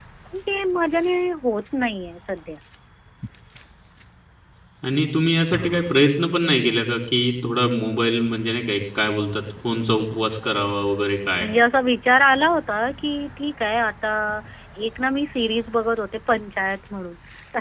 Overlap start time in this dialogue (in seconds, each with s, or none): none